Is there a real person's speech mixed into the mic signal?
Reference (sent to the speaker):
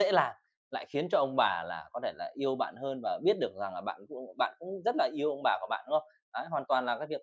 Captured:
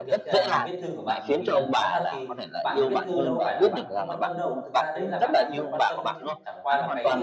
Yes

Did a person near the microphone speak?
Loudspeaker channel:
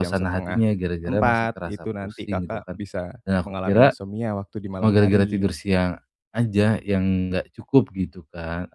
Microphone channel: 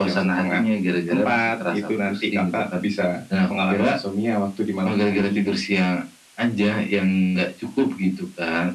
No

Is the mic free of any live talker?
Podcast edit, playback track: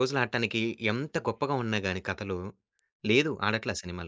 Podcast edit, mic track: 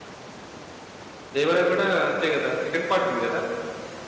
No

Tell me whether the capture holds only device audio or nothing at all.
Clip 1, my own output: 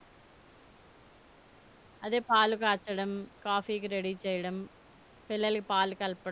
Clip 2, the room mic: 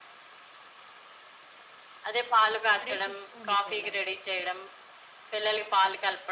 No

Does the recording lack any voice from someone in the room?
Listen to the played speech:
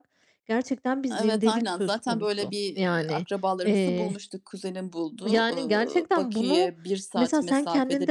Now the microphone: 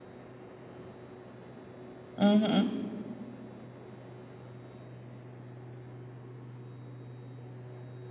No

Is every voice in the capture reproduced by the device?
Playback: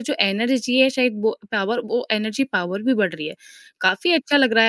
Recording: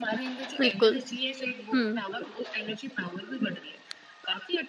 No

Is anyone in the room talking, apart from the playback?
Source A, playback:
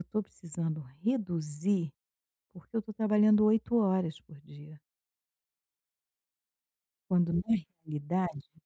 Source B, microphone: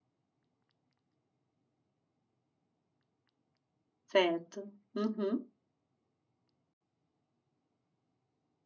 Yes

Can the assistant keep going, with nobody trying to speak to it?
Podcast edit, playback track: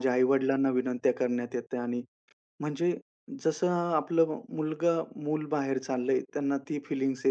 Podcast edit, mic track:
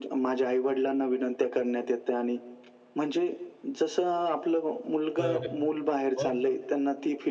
No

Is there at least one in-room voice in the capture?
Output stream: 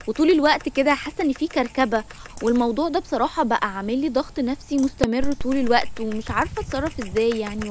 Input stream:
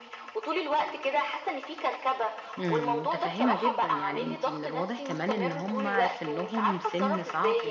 Yes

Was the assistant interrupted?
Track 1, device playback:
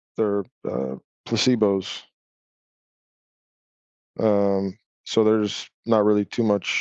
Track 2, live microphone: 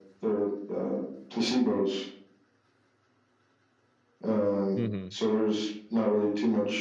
Yes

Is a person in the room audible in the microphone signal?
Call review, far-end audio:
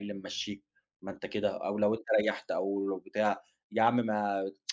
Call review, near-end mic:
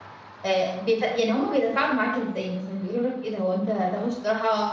Yes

